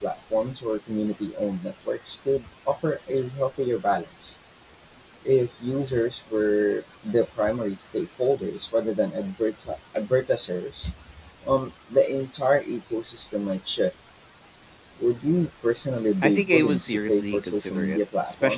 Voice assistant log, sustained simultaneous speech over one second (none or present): present